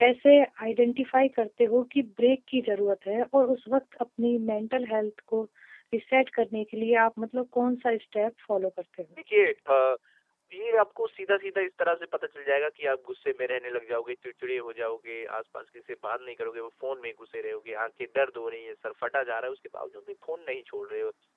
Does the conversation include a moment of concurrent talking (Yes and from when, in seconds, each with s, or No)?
No